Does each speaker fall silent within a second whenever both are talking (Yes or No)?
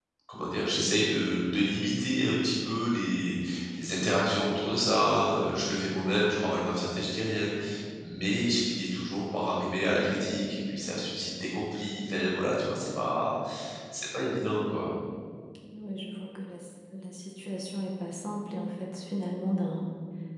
Yes